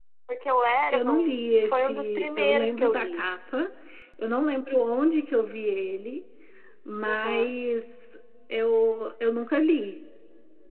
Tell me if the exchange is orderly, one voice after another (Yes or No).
No